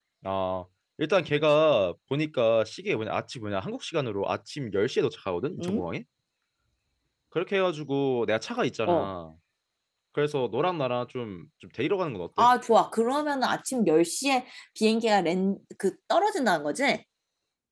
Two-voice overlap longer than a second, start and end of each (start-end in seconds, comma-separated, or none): none